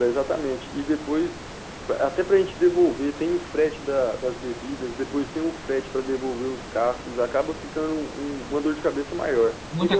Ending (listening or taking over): taking over